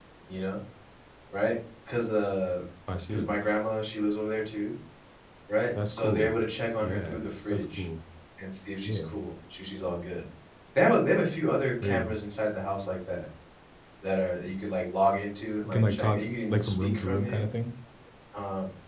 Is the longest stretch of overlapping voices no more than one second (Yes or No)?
No